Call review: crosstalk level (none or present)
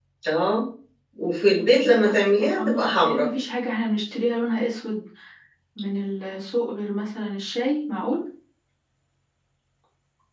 present